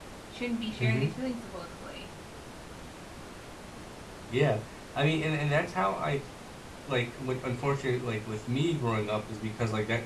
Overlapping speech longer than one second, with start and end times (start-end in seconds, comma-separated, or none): none